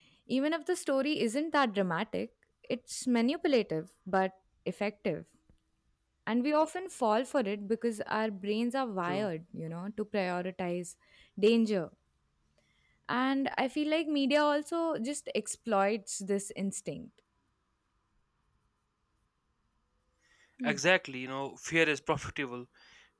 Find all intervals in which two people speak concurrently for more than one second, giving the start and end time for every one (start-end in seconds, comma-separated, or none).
none